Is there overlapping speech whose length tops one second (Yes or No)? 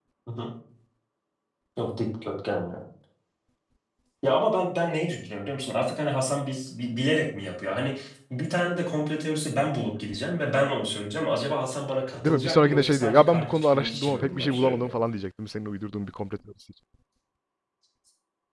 Yes